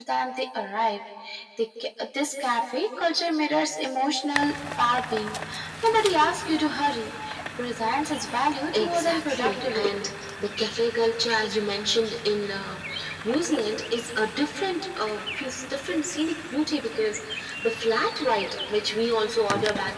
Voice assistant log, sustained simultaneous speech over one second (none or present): present